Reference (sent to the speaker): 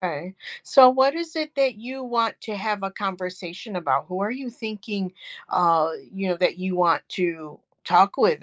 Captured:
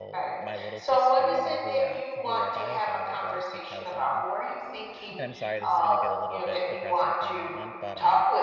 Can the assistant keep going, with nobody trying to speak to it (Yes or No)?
No